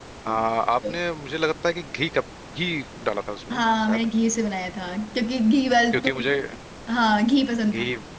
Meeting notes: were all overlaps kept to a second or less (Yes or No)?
Yes